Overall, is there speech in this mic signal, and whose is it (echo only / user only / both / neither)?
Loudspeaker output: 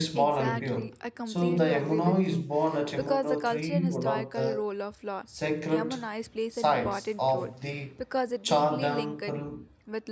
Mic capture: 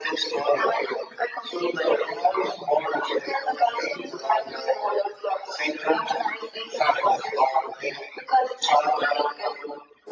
echo only